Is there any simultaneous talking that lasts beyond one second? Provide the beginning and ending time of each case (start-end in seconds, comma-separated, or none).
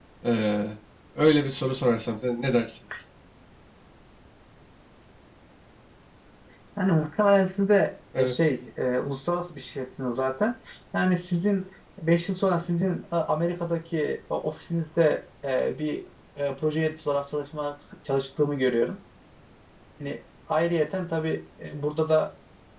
none